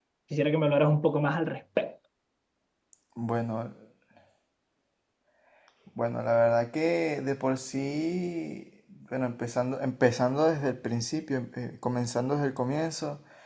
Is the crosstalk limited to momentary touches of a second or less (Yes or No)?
Yes